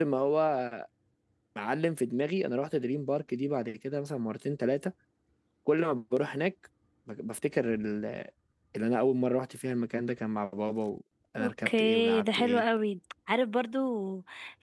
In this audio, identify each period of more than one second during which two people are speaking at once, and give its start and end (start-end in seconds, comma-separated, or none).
11.4-12.6